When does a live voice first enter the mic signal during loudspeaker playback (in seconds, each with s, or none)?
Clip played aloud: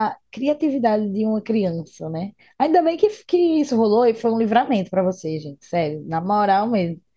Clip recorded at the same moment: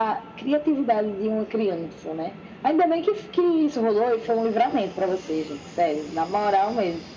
none